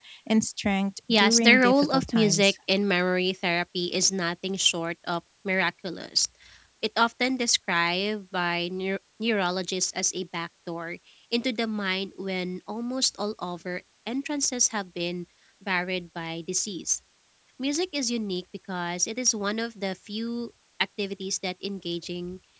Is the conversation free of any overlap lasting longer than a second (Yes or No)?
No